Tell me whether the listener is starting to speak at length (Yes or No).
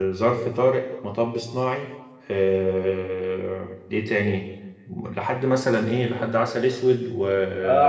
Yes